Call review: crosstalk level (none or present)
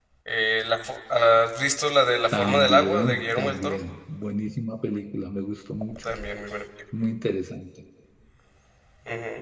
present